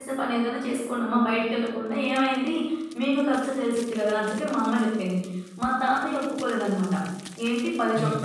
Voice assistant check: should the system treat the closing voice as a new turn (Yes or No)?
No